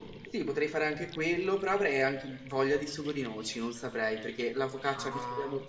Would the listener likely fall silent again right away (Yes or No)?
Yes